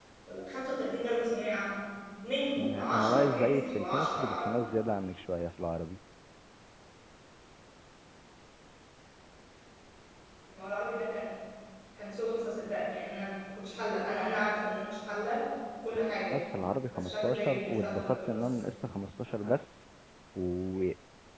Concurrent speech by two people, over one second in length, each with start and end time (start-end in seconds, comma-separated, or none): 2.6-4.6, 17.0-18.5